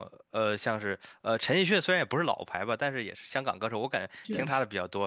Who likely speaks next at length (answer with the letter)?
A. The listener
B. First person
B